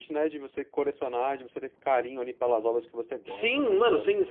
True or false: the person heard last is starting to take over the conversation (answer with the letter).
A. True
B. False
A